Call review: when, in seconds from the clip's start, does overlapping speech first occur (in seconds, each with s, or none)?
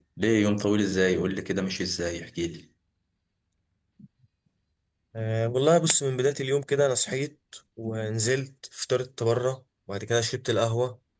none